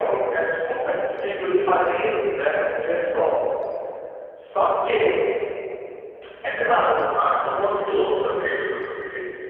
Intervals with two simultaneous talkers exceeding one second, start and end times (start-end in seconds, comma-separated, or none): none